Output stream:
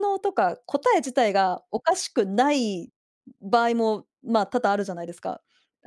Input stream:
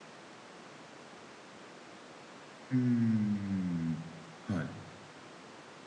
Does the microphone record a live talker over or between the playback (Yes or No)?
Yes